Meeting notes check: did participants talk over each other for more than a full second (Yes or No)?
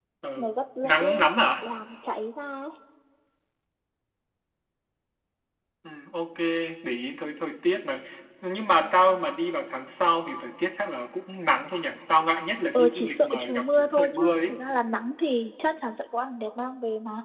Yes